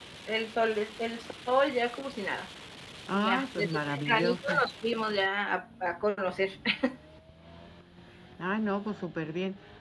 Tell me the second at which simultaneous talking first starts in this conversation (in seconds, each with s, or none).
3.1 s